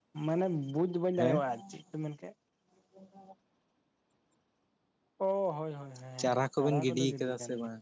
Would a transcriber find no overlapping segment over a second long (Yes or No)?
No